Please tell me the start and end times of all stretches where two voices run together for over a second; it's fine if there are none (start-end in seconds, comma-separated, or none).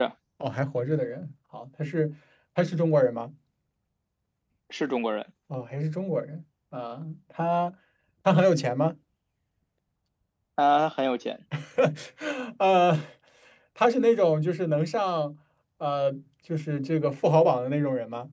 none